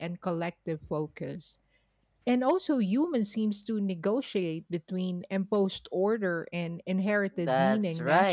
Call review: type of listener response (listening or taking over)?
taking over